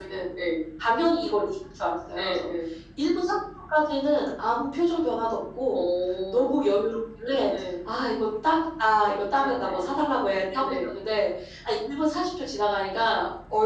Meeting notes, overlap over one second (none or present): none